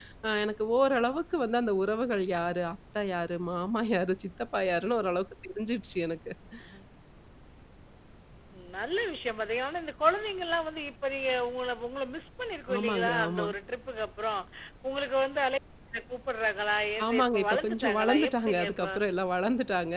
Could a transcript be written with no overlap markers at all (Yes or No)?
No